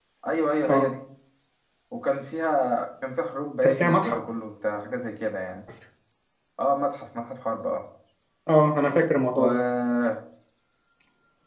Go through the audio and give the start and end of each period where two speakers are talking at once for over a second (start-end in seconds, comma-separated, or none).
none